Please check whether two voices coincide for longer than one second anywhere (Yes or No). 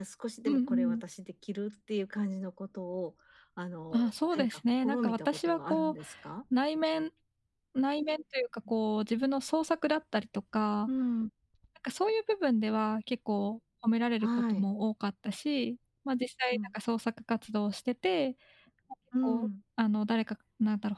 Yes